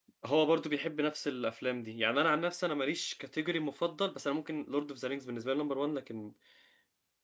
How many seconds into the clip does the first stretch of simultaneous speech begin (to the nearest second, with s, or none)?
none